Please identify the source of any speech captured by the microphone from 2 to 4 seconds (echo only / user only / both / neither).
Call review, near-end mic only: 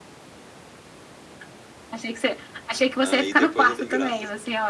both